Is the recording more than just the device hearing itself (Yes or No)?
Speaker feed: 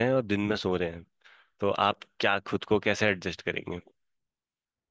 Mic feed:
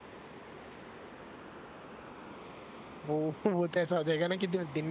Yes